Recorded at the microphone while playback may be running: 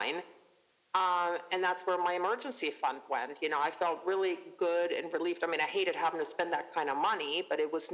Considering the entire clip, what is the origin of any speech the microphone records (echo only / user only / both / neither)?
echo only